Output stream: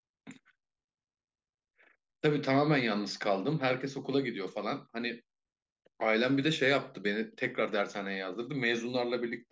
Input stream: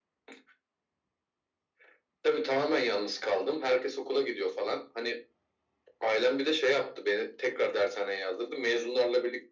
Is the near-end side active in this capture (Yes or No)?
No